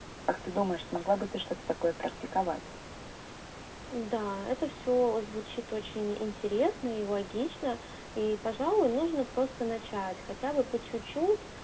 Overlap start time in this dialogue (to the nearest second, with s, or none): none